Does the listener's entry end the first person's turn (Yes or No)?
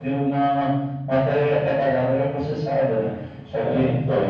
No